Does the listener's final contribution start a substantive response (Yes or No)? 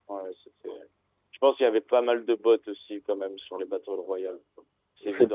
Yes